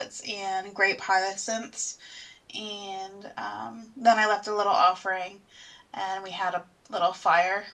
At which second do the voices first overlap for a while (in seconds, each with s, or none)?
none